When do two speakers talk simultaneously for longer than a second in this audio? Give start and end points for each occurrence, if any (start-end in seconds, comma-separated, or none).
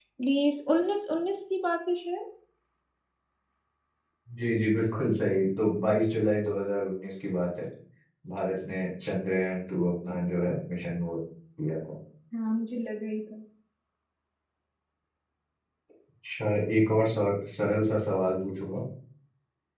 none